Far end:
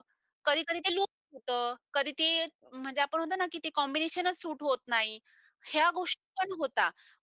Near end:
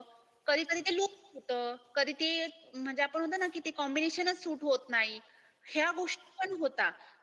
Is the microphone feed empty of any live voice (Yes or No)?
Yes